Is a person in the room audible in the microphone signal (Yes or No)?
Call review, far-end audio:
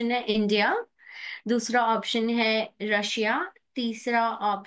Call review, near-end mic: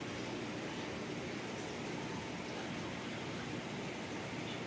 No